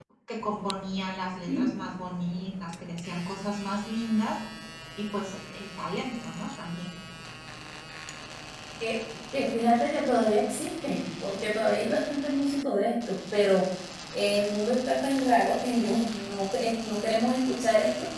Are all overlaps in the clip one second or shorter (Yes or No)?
Yes